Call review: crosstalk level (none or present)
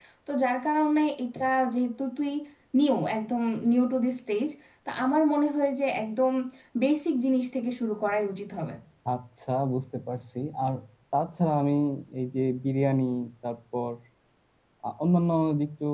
none